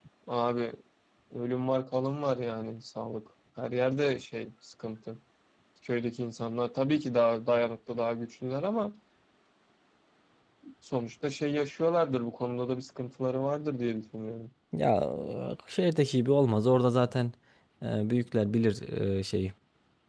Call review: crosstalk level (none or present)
none